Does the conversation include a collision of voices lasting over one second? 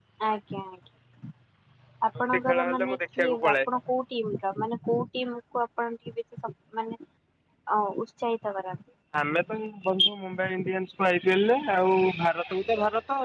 Yes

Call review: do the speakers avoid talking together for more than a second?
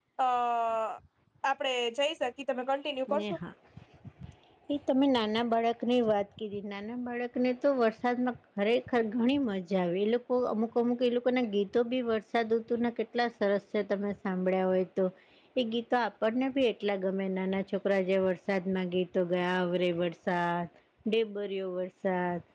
Yes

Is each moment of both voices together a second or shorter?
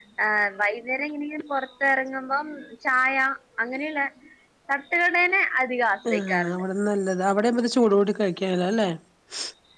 Yes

